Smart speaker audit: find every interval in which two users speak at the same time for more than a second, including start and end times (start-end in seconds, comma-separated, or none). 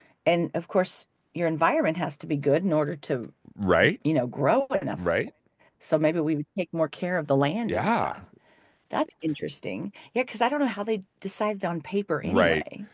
none